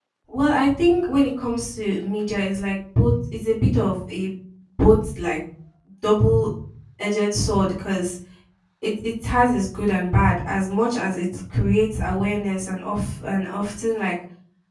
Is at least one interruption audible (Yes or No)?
No